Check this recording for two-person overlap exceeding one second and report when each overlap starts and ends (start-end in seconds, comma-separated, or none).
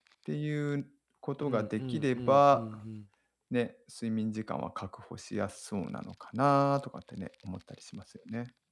1.5-2.8